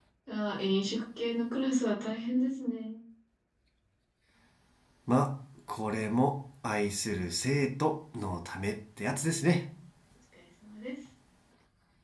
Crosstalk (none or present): none